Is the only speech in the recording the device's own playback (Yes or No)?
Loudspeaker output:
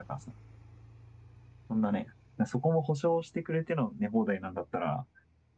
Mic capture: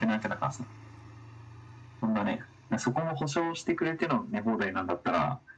Yes